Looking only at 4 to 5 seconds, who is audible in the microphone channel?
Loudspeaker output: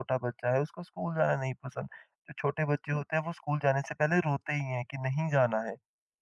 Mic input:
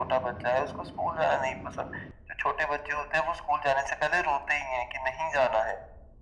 echo only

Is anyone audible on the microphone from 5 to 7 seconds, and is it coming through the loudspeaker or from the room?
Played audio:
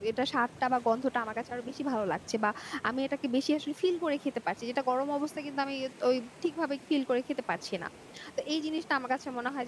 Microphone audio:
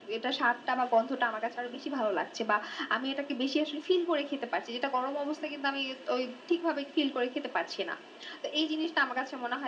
echo only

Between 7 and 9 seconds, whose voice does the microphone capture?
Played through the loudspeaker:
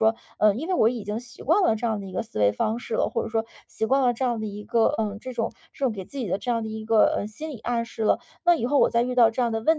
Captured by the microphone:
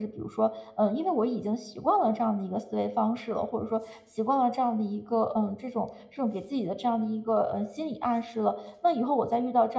echo only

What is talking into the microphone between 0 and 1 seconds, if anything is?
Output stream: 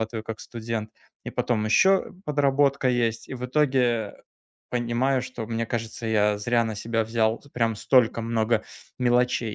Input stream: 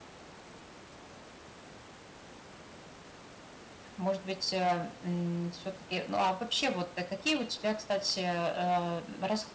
neither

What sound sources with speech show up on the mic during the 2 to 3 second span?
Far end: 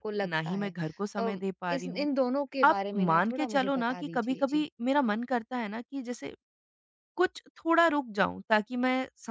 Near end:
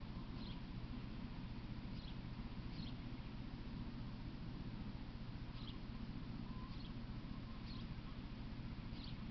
neither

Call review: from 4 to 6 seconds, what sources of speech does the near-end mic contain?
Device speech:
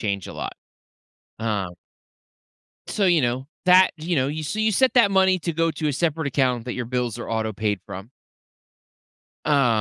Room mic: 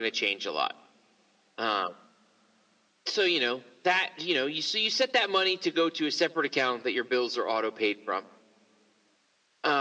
echo only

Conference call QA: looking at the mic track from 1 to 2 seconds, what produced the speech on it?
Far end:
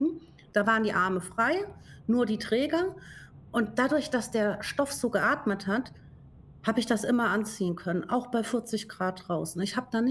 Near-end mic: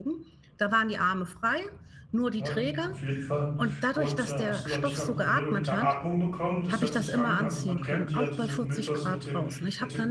echo only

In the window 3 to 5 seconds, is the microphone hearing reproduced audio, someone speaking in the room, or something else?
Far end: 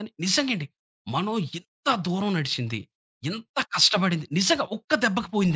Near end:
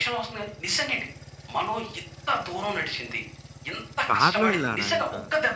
both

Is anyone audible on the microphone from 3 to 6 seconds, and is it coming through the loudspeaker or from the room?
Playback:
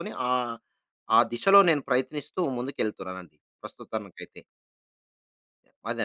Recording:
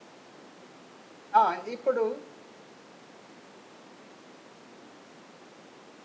neither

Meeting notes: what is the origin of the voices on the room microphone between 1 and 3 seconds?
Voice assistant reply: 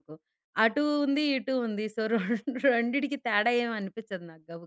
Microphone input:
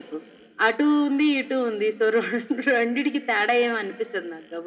echo only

